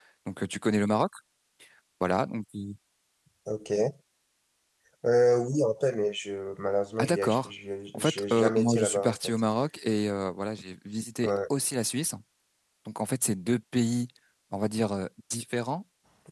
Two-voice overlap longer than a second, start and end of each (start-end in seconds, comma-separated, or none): 7.9-9.3